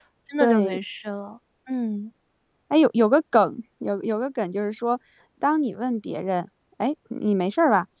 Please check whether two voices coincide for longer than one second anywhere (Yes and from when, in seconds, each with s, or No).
No